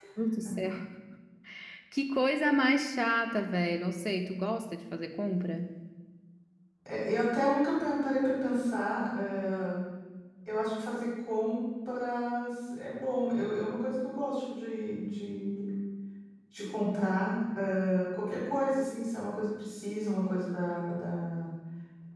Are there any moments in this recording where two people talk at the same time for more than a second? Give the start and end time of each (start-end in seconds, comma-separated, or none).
none